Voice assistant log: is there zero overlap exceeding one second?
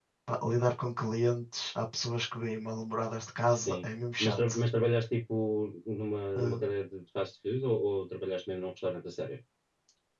Yes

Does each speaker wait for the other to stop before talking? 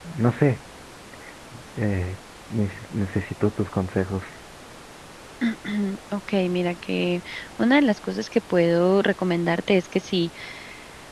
Yes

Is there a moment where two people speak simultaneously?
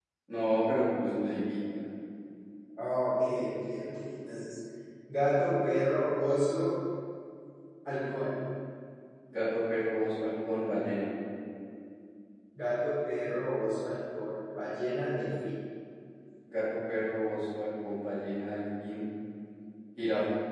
No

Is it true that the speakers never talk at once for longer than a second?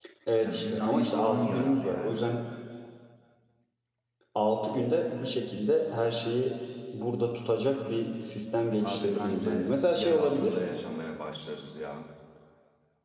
No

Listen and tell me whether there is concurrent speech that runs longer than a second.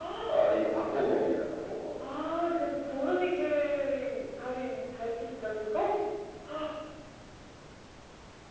No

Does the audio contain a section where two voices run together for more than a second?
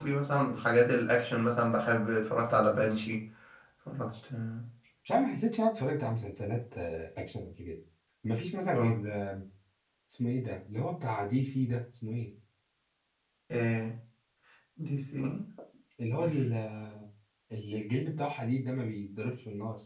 No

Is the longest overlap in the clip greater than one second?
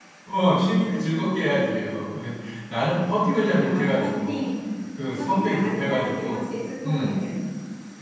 Yes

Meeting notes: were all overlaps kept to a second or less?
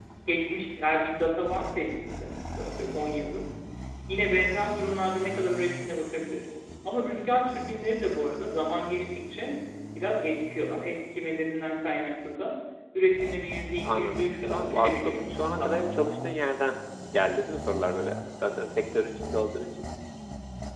No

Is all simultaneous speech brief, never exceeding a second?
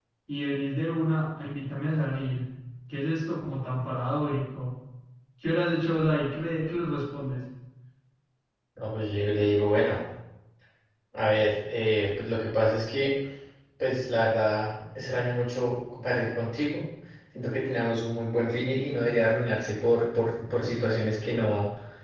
Yes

